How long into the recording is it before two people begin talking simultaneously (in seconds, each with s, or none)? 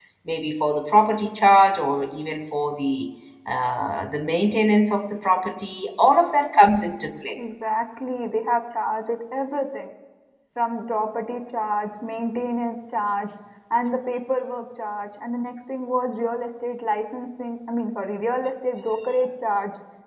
none